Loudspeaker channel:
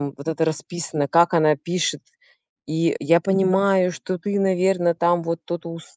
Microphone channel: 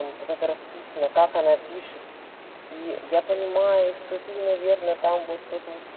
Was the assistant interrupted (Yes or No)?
No